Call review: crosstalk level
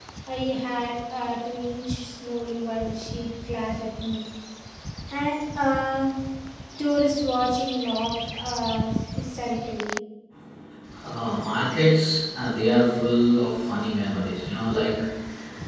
none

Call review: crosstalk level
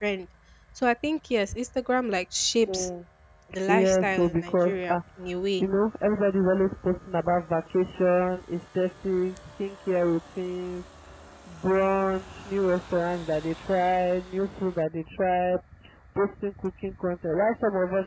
present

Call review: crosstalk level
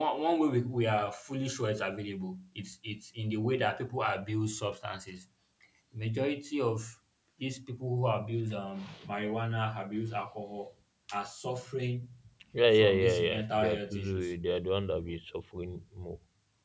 present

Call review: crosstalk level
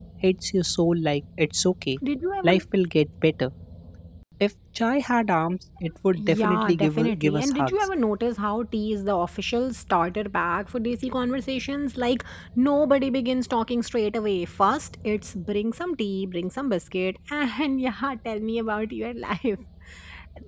present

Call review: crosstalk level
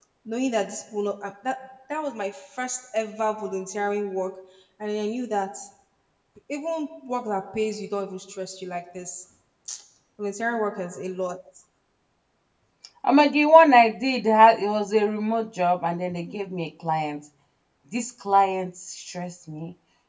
none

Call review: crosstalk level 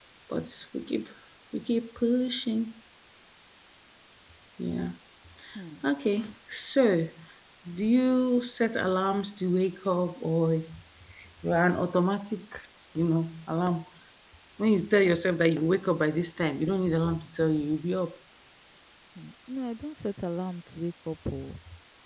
none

